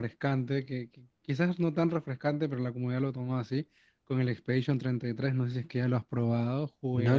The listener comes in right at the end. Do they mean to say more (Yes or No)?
Yes